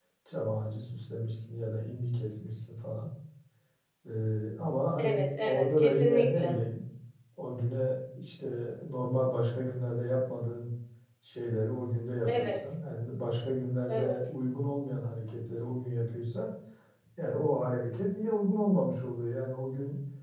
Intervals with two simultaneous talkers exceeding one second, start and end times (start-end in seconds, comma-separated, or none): 5.0-6.5